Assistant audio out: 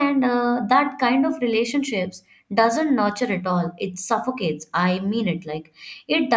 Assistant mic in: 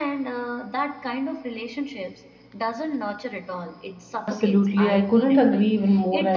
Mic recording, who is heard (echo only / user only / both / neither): both